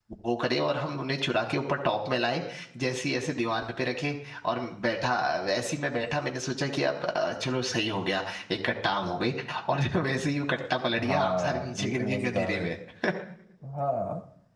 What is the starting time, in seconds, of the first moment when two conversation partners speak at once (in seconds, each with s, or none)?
11.0 s